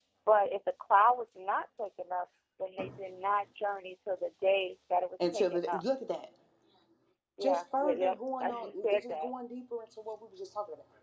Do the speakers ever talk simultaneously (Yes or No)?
Yes